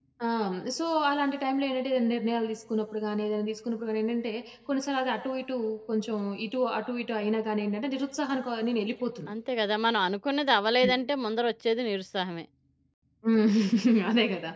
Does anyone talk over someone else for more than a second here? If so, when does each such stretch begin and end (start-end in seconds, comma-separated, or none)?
none